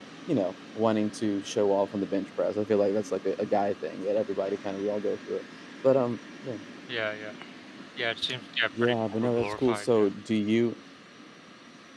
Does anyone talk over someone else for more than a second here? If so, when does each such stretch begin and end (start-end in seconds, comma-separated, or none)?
8.8-10.1